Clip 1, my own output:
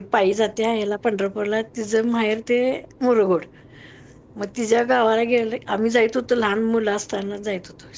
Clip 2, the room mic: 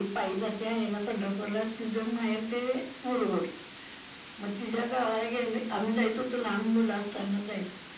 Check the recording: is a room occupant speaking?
No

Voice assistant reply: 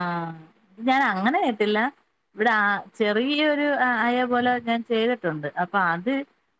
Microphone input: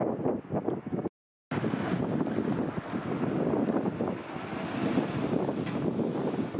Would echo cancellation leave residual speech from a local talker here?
No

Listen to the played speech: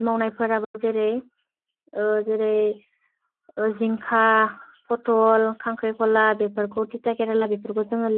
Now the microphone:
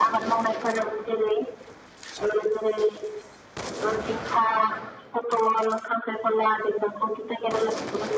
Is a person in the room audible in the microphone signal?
No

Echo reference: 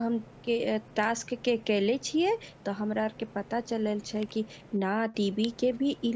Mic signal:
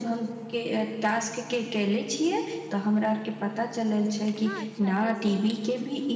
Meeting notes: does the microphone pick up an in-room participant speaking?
Yes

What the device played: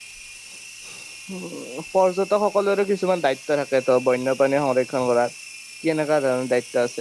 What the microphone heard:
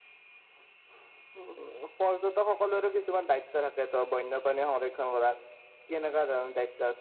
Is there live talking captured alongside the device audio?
No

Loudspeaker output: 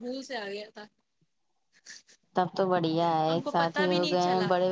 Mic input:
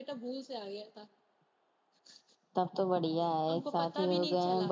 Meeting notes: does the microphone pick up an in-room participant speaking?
No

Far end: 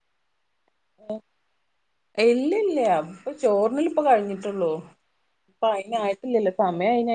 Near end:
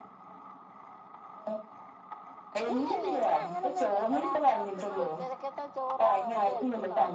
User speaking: Yes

